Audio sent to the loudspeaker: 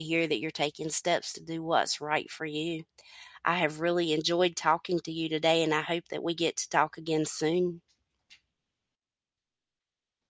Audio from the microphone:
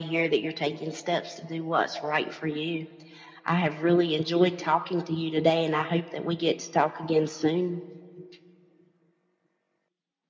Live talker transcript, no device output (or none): none